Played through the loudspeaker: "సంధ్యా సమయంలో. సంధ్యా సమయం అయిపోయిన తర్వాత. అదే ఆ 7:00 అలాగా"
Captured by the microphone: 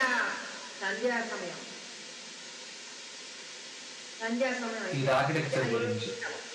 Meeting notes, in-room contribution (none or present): present